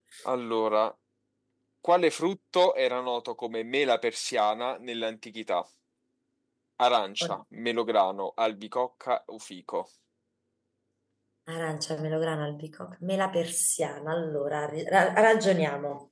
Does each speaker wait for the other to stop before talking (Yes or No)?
Yes